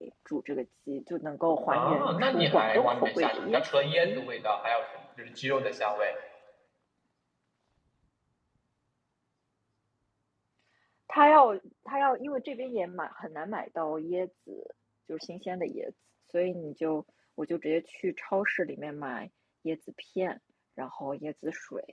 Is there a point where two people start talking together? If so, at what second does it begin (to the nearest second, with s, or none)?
2 s